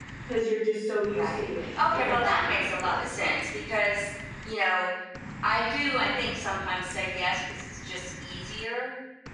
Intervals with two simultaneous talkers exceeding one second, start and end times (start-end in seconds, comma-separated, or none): 1.1-3.1